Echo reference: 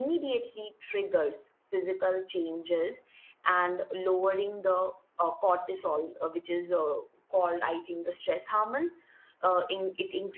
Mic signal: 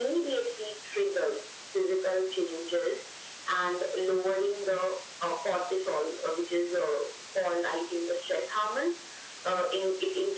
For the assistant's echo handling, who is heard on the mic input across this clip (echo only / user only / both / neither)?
echo only